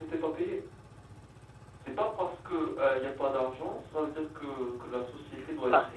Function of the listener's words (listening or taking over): taking over